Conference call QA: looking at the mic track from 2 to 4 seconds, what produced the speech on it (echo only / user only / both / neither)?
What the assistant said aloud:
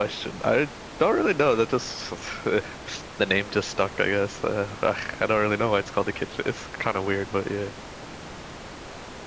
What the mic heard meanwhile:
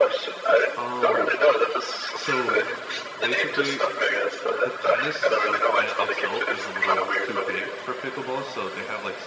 both